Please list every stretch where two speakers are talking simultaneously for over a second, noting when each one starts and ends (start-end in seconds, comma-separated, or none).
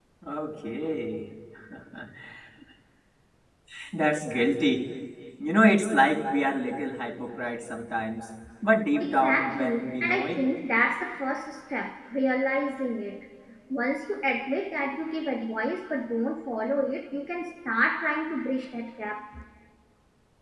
9.0-10.4